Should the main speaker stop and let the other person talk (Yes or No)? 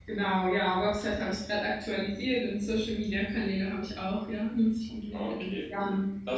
Yes